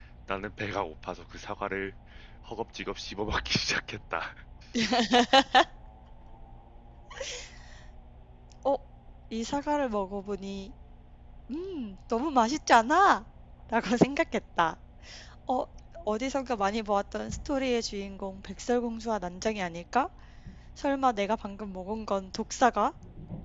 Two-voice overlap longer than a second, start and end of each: none

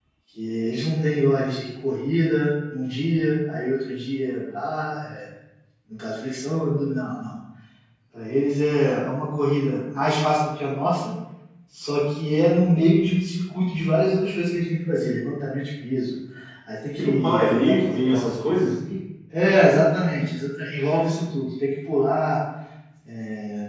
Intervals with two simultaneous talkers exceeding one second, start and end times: 17.0-18.4

